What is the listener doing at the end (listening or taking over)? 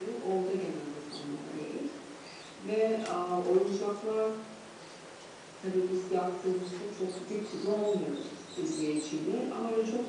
listening